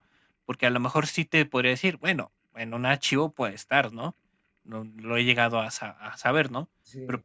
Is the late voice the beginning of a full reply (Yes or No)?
No